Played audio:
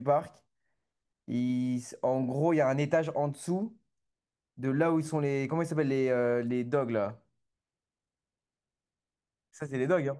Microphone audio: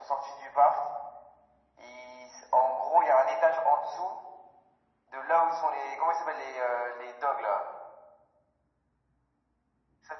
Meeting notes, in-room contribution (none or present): none